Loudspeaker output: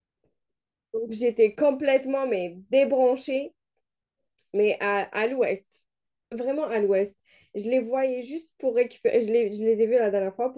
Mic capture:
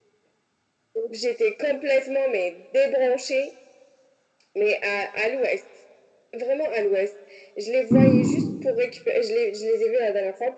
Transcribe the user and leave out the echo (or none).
Hum,